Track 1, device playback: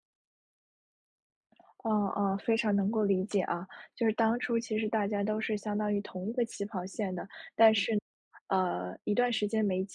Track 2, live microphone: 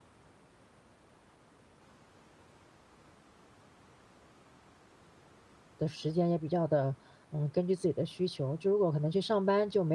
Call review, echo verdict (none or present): none